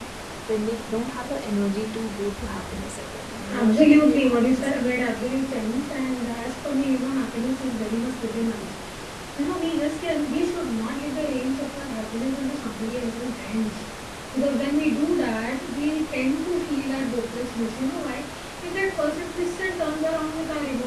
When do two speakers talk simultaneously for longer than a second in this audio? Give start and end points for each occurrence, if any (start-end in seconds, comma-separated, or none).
3.5-5.2